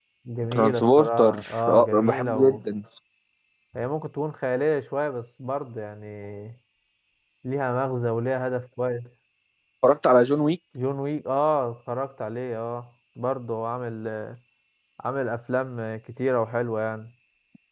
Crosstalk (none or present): present